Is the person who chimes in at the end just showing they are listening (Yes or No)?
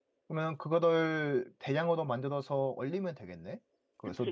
No